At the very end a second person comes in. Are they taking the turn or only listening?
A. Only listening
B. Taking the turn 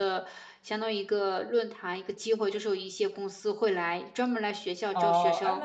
B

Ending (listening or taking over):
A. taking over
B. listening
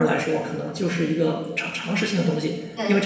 B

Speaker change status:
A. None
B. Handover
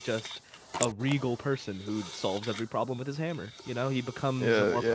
B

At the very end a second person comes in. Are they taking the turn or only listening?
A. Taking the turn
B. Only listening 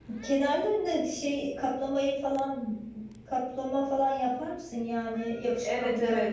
A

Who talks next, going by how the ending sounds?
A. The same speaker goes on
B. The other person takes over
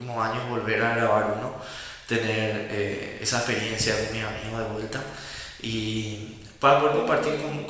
A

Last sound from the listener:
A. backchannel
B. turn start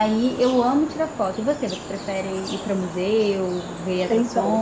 B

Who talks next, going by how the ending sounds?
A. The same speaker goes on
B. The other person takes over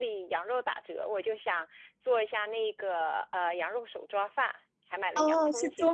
B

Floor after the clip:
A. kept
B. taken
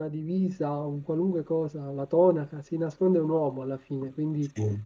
A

